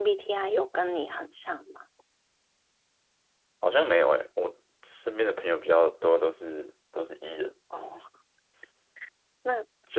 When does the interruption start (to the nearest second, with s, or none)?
none